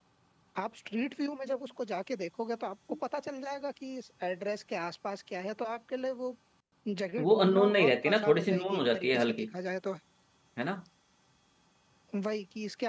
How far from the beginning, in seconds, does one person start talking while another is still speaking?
7.2 s

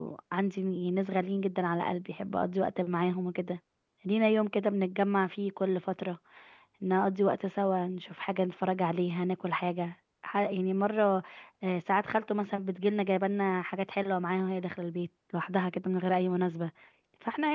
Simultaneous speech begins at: none

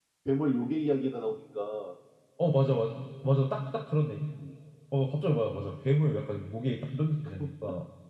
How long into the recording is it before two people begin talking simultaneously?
none

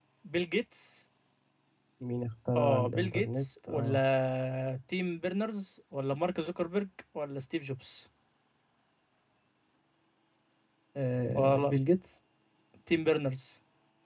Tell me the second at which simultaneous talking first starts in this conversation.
2.5 s

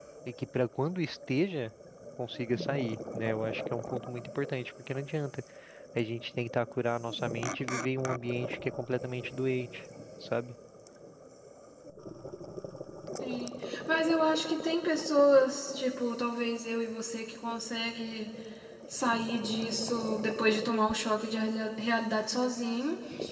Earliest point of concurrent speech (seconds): none

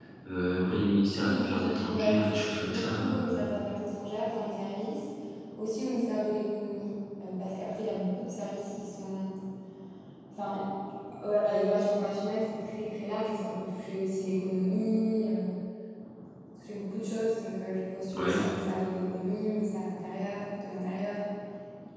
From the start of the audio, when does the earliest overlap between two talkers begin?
1.2 s

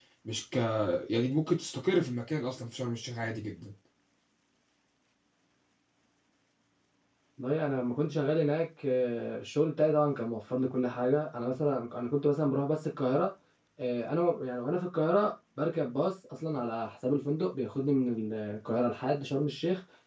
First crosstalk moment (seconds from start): none

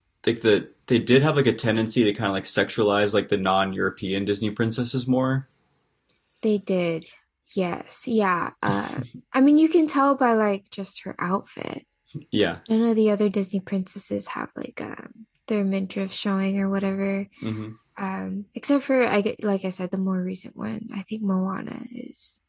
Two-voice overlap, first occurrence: none

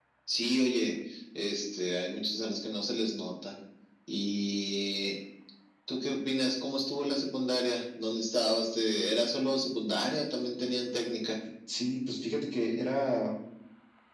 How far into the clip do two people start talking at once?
none

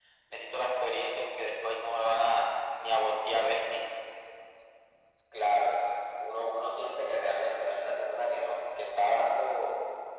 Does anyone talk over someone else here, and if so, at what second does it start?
none

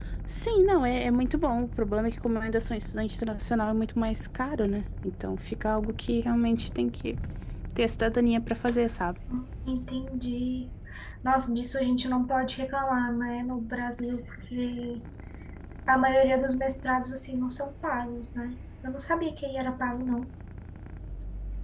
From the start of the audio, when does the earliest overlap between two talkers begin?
none

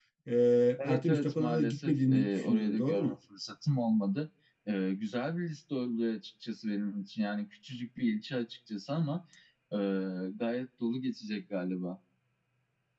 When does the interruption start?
0.8 s

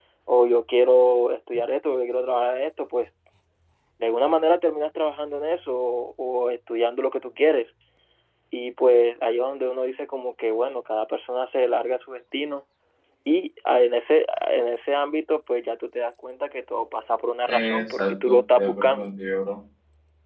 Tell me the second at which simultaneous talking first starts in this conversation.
17.5 s

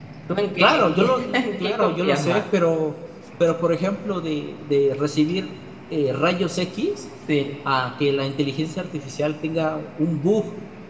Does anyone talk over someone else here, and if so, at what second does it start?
0.6 s

